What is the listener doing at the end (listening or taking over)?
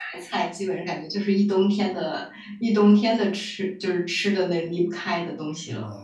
taking over